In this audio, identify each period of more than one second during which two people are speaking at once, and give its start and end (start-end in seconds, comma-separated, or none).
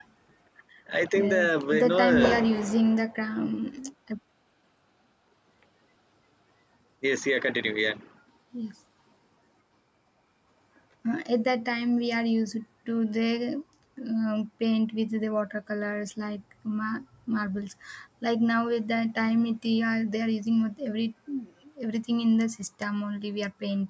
1.1-2.5